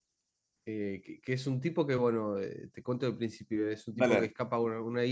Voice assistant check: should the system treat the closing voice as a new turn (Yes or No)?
No